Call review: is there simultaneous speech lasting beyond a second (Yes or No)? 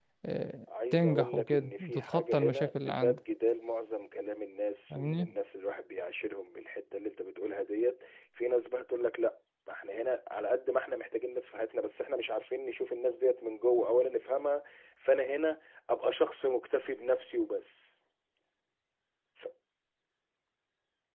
Yes